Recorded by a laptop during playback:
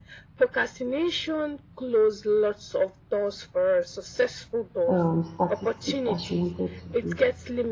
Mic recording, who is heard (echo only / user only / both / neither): both